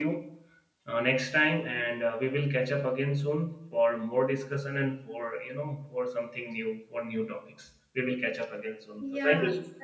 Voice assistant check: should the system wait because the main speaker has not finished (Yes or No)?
No